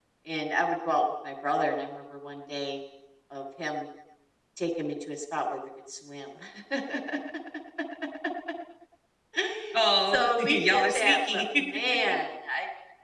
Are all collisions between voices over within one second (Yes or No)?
No